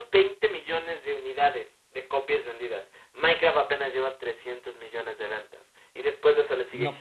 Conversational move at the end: listening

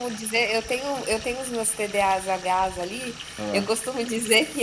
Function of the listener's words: listening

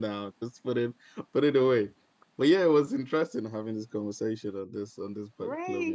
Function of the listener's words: taking over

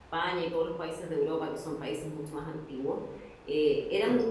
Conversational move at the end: listening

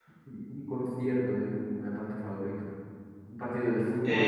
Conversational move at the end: listening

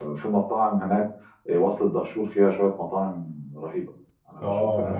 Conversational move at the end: taking over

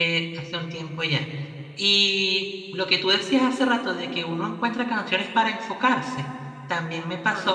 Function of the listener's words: listening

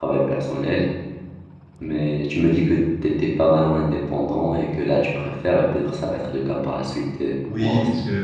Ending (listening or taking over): taking over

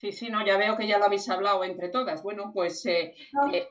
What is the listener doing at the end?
listening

